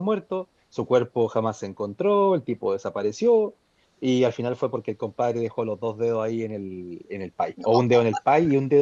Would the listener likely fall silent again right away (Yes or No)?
Yes